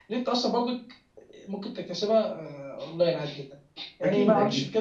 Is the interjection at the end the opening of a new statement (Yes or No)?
No